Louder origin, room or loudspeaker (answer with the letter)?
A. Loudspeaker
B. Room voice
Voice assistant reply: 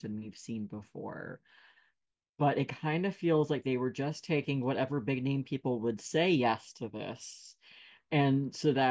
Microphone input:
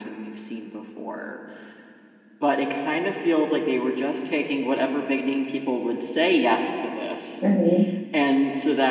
B